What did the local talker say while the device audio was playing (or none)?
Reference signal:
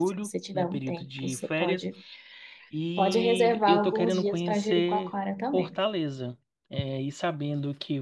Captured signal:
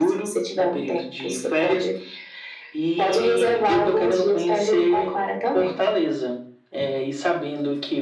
none